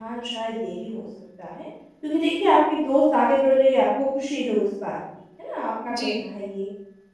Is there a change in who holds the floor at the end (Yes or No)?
No